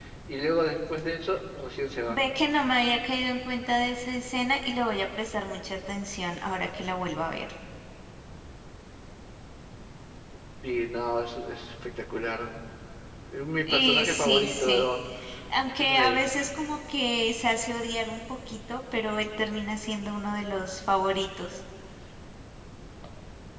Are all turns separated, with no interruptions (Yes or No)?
No